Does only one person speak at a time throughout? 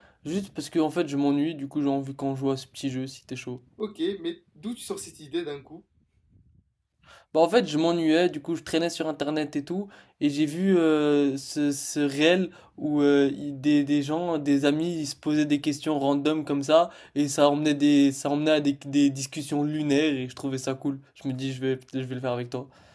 Yes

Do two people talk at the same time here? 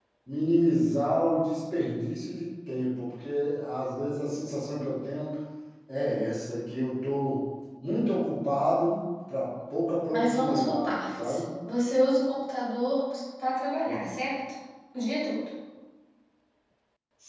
Yes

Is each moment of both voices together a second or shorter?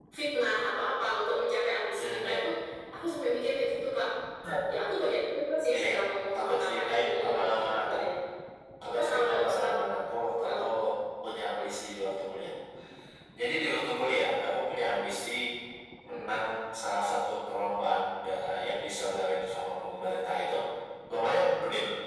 No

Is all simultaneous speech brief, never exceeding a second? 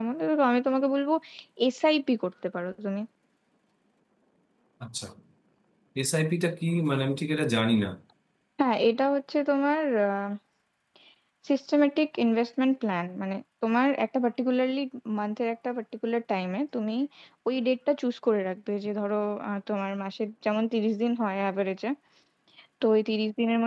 Yes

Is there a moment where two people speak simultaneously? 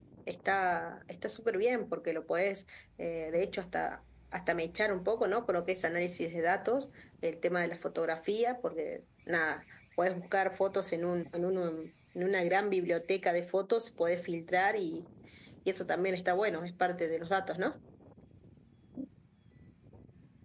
No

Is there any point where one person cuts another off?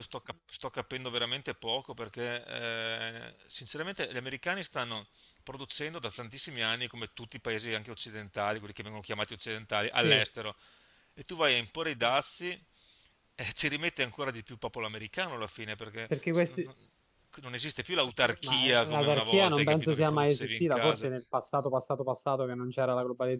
Yes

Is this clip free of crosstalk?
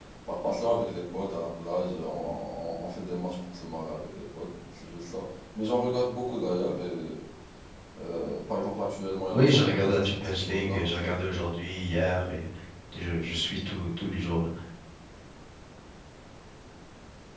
No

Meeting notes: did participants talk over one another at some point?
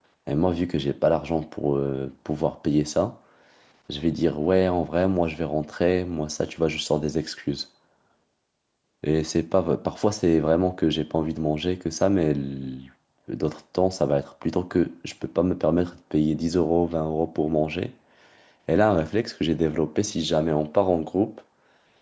No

